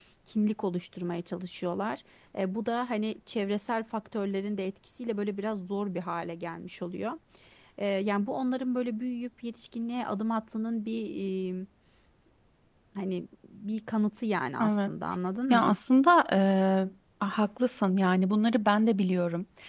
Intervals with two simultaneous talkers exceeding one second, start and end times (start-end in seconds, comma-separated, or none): none